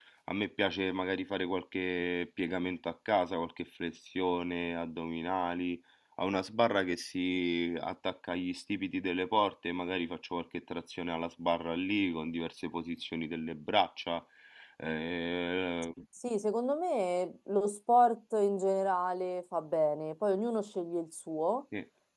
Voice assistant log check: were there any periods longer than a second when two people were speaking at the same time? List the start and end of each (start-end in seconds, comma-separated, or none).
none